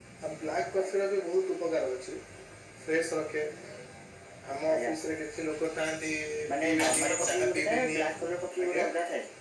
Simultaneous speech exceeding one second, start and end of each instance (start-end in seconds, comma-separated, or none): 6.6-8.0